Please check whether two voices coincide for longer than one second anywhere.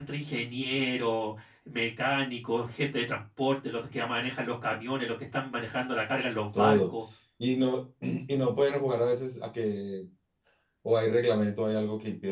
No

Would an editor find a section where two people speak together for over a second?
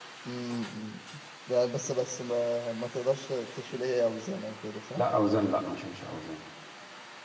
No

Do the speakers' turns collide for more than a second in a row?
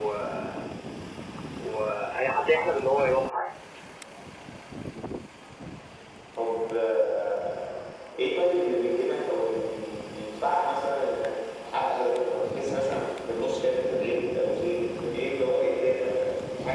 No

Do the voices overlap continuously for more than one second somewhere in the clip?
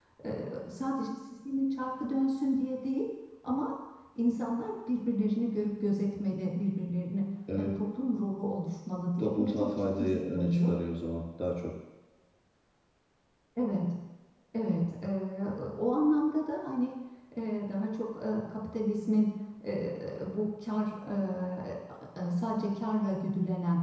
Yes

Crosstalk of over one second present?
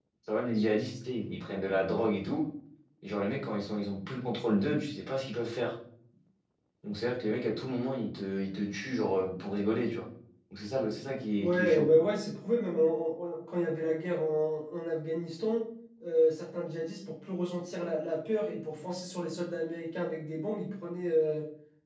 No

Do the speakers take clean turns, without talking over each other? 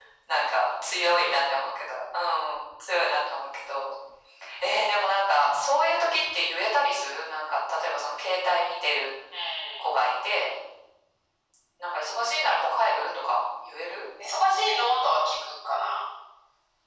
Yes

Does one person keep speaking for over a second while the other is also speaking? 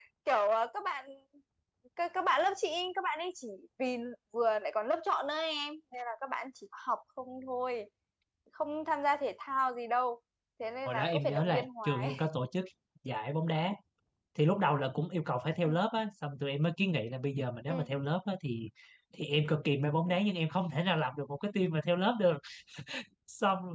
Yes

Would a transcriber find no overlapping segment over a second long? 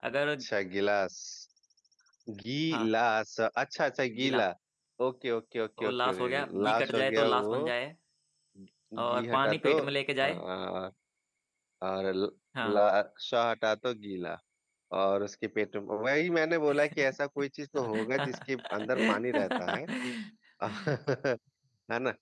No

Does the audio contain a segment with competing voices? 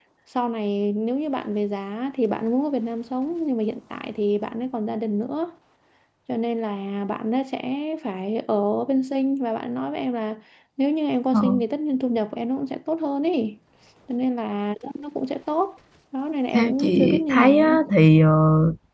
Yes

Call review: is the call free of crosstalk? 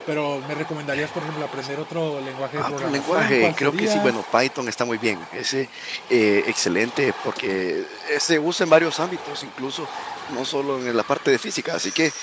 No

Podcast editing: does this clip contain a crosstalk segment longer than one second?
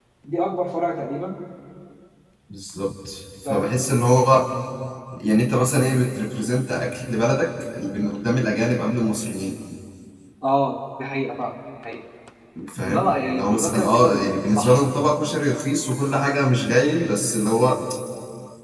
Yes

